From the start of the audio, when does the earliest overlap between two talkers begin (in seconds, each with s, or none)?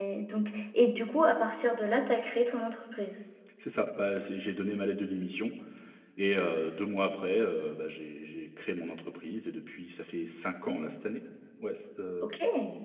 none